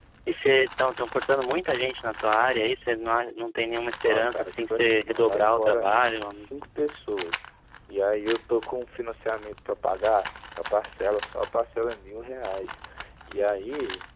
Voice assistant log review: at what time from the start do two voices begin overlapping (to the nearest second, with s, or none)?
4 s